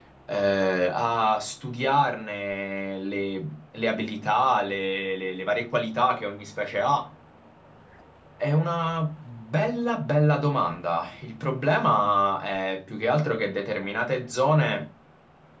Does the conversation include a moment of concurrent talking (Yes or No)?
No